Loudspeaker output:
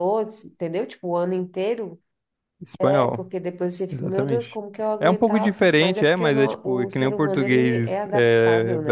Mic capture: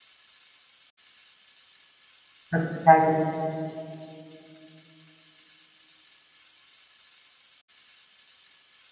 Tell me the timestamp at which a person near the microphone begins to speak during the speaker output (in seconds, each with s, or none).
2.5 s